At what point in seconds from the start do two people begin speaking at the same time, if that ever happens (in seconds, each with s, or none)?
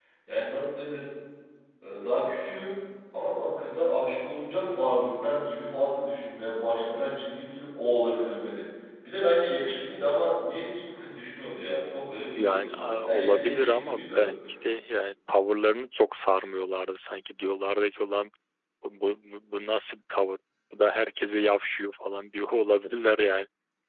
12.4 s